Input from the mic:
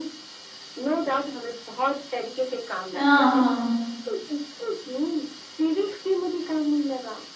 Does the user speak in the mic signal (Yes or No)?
Yes